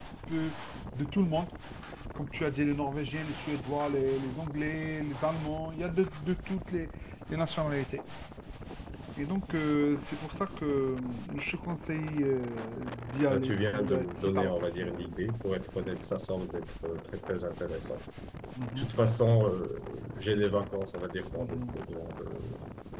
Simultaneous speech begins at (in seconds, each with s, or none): 13.3 s